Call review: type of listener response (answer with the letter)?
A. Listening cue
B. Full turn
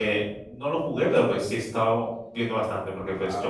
A